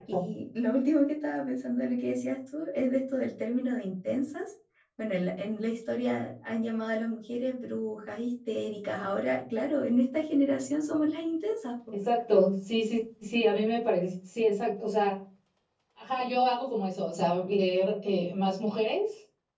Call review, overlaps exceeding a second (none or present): none